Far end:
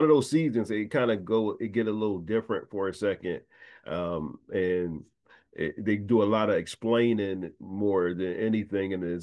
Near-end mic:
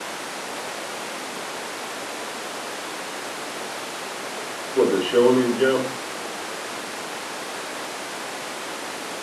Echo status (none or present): none